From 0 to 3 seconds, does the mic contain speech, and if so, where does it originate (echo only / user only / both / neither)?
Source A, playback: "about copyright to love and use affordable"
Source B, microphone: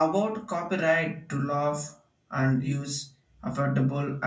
echo only